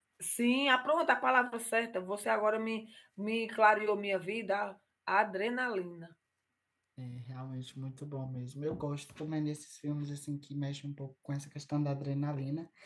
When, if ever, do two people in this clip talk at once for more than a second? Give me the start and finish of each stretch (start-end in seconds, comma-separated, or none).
none